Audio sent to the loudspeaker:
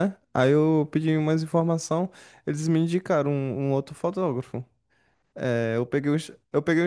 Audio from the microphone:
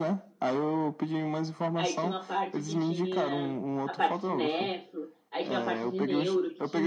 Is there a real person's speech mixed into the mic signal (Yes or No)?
Yes